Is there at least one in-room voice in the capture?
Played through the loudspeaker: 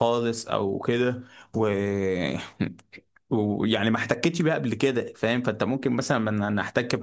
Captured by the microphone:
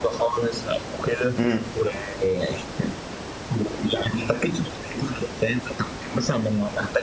Yes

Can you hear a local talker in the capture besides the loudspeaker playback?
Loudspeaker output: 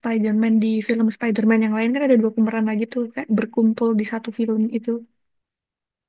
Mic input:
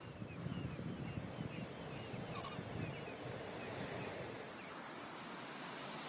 No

